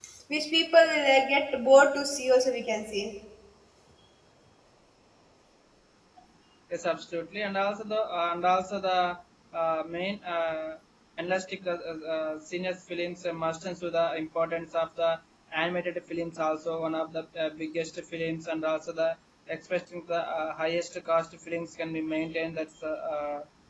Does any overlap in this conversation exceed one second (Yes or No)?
No